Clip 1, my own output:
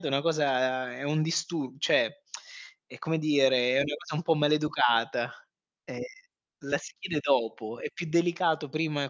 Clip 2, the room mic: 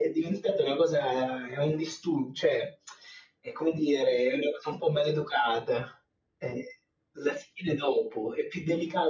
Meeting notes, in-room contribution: none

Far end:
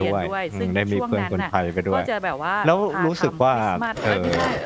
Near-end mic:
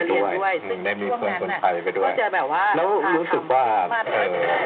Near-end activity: none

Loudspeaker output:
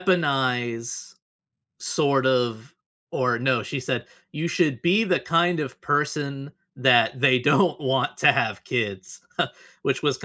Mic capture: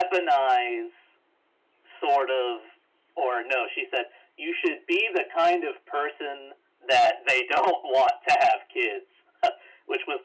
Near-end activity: none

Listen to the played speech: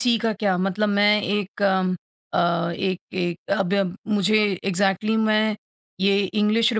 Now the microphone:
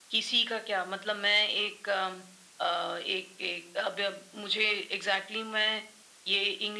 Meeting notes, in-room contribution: none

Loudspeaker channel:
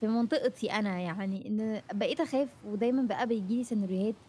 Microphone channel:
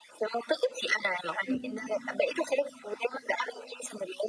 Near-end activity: present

